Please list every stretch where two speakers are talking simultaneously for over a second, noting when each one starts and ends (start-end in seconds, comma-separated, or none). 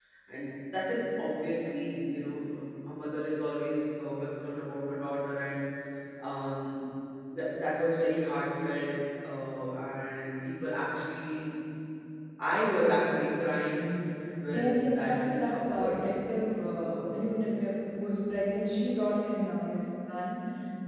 14.5-16.0